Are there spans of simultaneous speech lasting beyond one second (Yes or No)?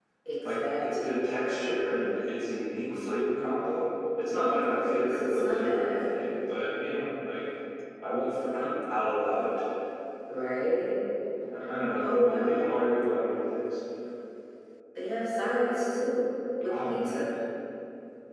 Yes